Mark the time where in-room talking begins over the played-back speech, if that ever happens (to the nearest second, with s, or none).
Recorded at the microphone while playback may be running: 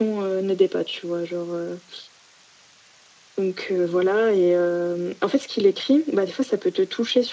none